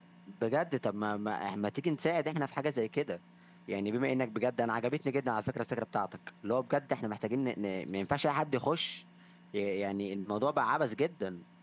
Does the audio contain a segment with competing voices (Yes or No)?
No